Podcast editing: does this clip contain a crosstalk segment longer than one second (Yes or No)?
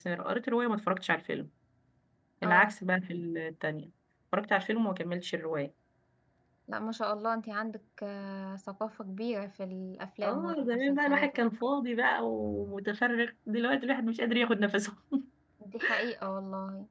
Yes